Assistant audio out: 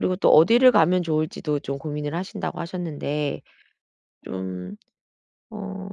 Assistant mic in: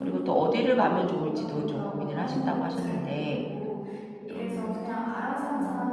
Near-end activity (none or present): present